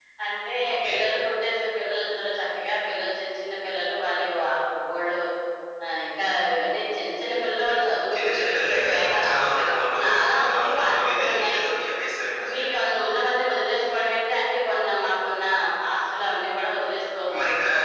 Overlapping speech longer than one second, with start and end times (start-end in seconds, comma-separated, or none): 8.1-9.4, 10.0-11.6